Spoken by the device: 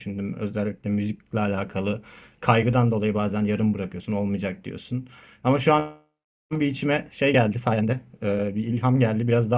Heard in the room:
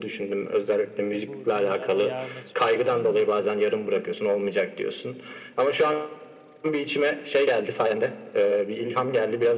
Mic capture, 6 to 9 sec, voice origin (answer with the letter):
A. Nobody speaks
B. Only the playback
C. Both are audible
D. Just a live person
B